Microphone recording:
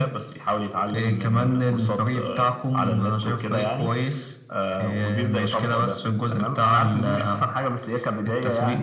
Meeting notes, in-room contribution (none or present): none